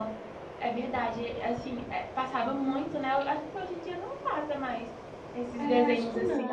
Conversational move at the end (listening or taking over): taking over